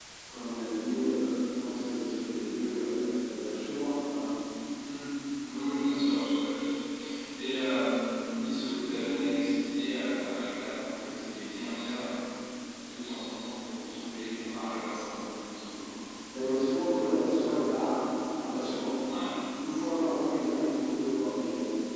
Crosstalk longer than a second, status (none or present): none